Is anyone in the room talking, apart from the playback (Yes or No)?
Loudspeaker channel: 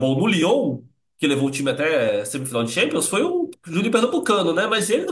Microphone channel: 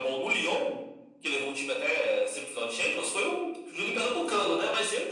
No